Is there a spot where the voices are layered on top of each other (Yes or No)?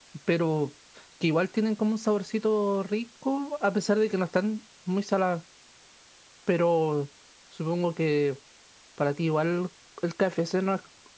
No